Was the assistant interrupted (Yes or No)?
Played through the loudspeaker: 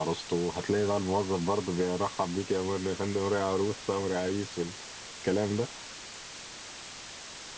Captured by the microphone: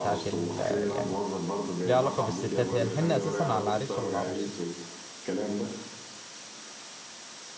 Yes